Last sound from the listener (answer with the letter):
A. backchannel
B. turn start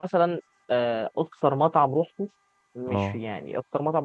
A